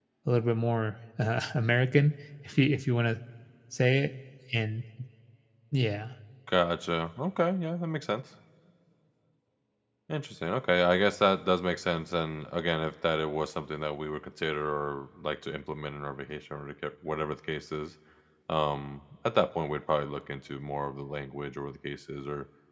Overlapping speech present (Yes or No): No